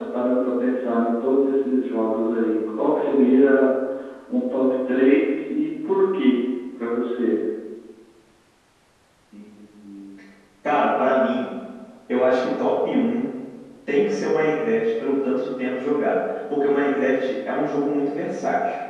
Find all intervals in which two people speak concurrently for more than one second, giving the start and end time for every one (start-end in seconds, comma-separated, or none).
none